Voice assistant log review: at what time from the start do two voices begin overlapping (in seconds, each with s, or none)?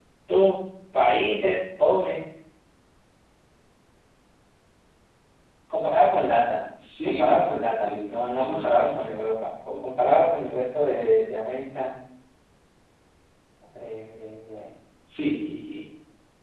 7.0 s